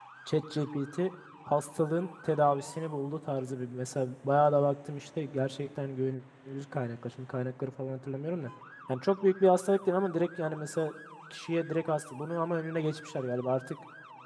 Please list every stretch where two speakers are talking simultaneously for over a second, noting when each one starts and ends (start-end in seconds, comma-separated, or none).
none